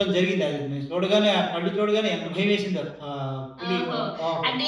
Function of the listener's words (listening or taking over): taking over